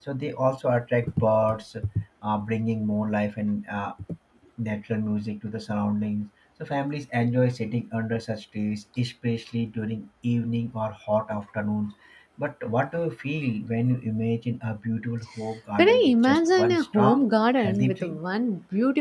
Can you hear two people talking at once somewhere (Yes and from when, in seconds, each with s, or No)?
Yes, from 15.8 s